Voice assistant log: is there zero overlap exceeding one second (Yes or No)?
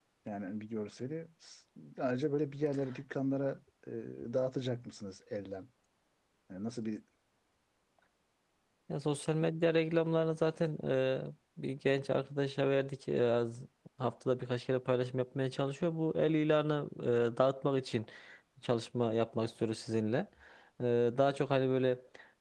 Yes